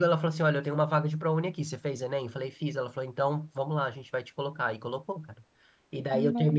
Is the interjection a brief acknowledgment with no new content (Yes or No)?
Yes